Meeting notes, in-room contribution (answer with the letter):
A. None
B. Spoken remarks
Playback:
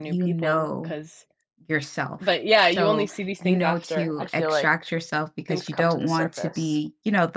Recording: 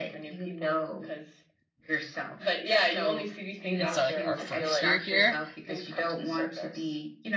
B